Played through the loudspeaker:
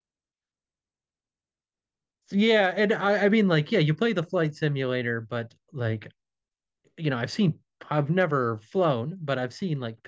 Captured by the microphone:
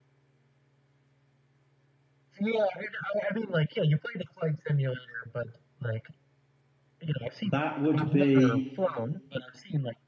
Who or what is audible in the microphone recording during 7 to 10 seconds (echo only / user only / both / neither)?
both